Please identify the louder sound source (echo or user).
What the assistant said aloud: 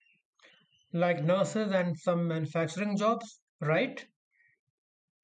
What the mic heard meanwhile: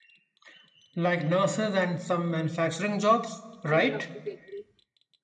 echo